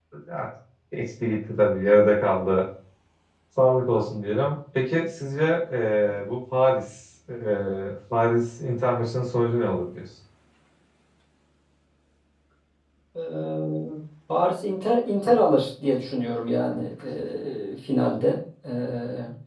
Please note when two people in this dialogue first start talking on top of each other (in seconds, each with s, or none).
none